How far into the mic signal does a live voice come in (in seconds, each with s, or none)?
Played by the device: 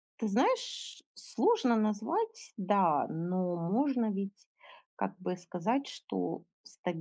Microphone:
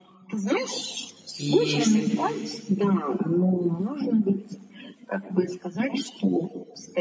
1.4 s